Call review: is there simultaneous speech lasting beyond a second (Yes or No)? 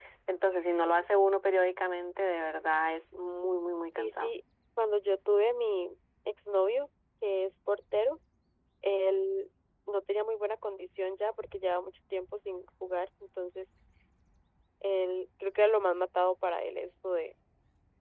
No